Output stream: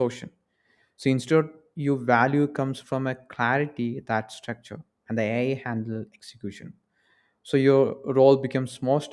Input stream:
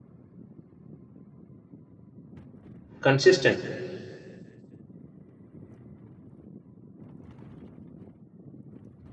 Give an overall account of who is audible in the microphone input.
user only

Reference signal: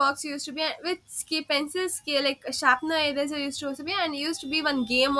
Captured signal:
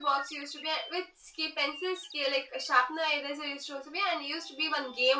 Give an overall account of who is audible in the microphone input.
echo only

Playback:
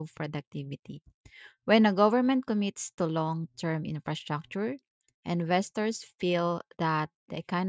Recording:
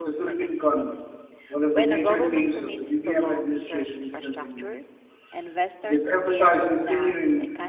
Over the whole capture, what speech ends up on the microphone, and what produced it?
both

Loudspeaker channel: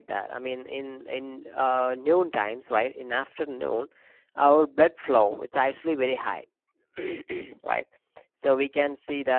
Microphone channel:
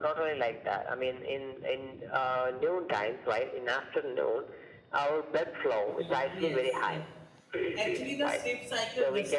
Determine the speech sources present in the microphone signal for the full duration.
both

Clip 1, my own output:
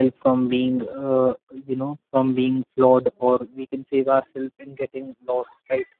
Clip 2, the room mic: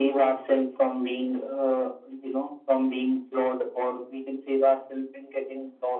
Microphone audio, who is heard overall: echo only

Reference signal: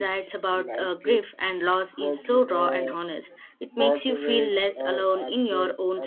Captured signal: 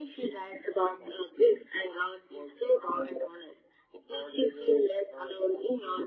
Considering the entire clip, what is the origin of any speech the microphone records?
echo only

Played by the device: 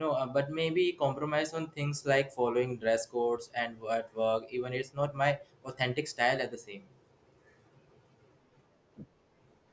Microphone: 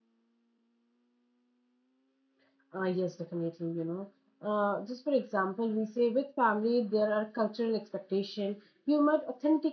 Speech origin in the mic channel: user only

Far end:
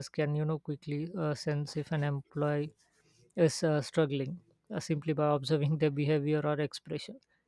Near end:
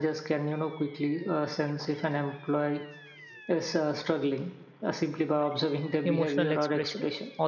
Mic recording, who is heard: both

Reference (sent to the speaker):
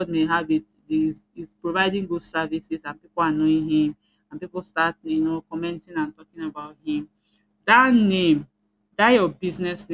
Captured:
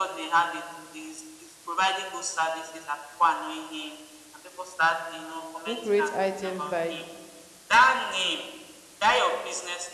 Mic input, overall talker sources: both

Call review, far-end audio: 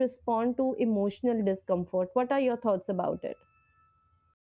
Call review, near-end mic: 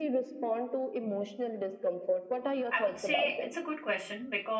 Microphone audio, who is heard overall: both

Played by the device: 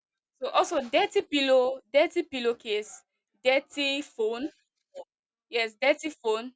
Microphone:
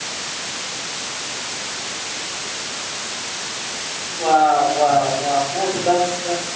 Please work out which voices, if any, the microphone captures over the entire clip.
user only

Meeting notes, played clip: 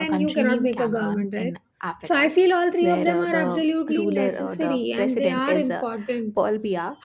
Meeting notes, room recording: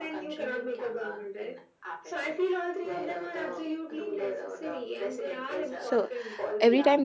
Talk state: both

